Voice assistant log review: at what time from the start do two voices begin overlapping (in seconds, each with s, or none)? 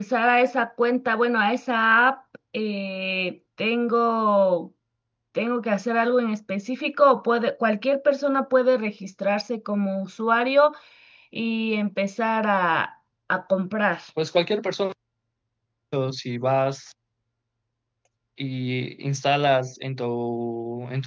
none